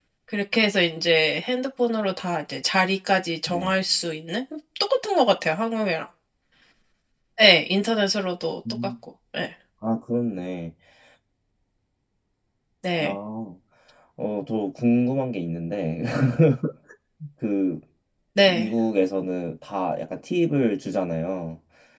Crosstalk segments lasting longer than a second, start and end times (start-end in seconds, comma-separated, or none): none